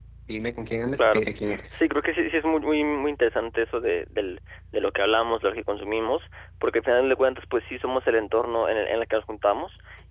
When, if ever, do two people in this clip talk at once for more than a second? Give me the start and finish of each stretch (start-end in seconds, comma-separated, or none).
none